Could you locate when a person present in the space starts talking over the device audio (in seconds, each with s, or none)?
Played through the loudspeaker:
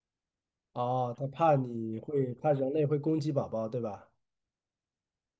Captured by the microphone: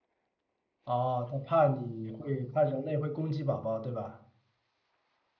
none